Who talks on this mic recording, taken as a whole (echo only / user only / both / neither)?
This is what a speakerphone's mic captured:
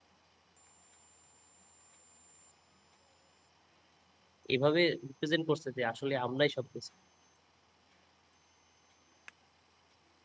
user only